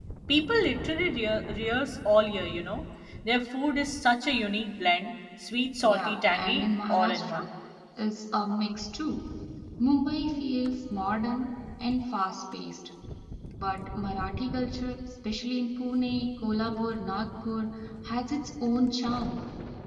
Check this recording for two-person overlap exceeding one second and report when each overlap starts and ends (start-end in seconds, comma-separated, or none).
5.8-7.4